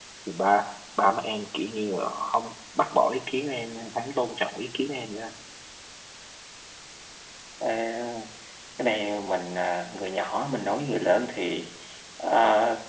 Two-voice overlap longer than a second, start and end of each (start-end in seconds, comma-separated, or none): none